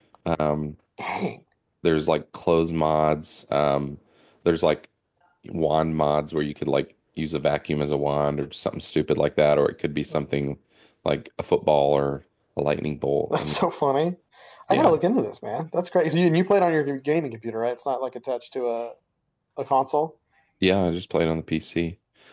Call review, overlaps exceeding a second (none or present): none